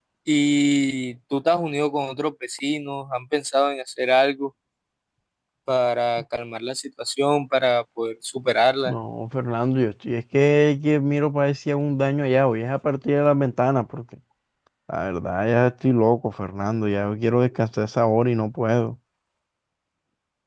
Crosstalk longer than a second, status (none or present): none